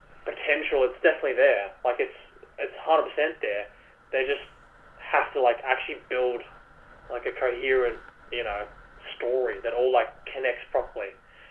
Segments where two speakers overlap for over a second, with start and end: none

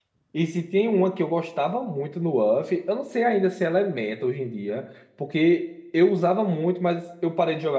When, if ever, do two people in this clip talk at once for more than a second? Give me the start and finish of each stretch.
none

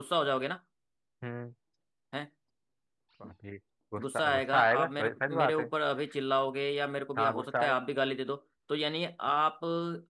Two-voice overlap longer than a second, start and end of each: 4.0-5.7

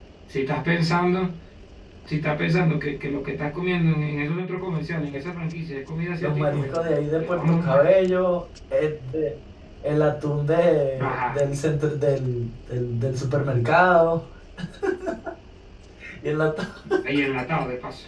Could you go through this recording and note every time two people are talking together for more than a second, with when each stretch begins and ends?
6.2-7.9

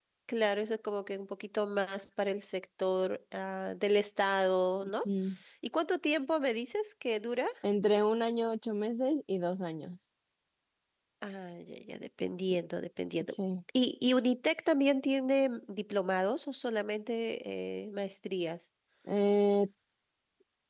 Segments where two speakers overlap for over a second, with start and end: none

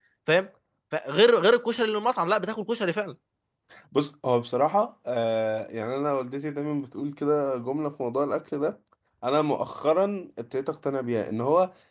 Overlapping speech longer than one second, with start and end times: none

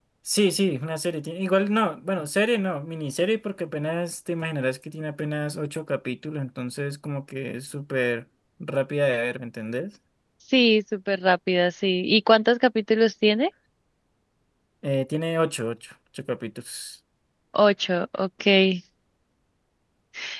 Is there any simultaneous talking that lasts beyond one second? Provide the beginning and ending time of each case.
none

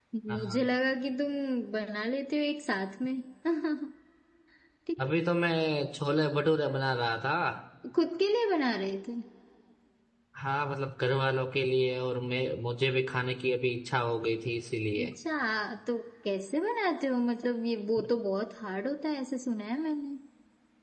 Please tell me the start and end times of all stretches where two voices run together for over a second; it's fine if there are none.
none

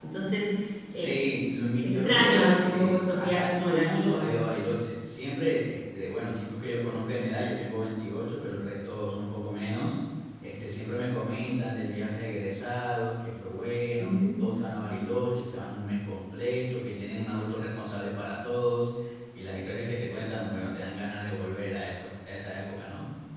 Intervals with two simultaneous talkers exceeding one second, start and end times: 1.8-4.4

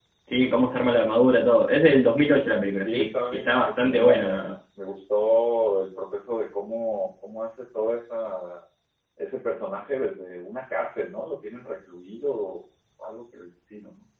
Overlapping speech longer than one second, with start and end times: 2.8-4.5

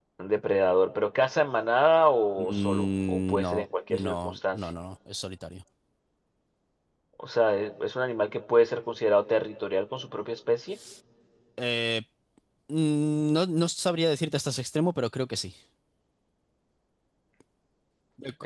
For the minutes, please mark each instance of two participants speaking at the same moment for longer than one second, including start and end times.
2.4-4.6

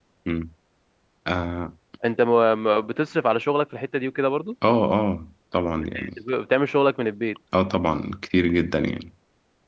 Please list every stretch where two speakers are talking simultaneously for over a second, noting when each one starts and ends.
none

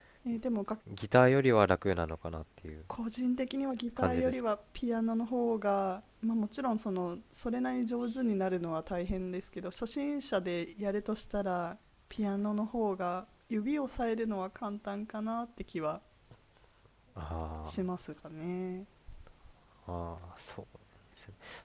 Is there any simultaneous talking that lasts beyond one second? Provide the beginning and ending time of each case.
none

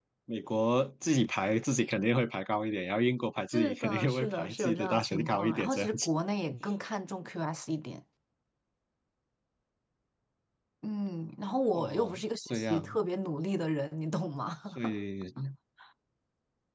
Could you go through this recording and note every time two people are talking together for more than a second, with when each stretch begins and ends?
3.5-6.1, 11.7-13.0

